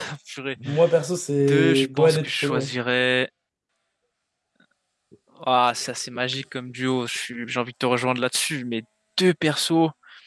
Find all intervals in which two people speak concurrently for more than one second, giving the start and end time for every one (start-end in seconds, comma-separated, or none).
1.5-2.7